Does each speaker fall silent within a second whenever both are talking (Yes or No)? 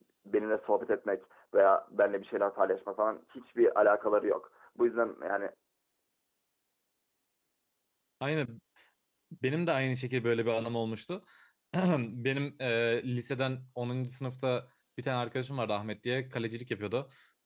Yes